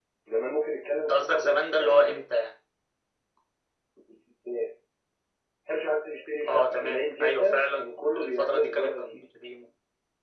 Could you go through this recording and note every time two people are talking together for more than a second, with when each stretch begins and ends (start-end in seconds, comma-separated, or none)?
0.9-2.2, 6.4-9.3